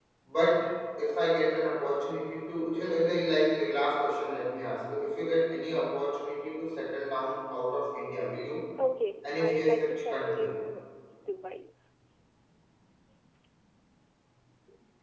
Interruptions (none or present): present